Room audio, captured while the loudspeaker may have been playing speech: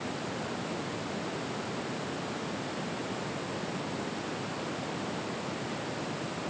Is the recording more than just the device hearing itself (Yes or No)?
No